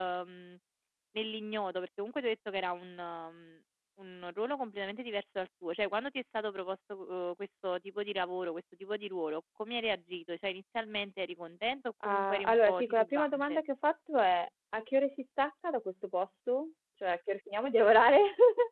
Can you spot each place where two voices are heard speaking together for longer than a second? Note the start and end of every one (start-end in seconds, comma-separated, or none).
12.0-13.6